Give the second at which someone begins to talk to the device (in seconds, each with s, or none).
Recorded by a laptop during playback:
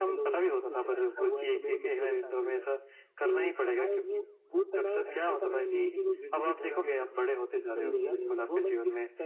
7.8 s